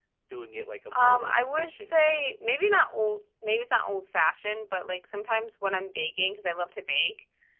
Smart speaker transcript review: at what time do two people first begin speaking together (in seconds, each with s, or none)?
0.9 s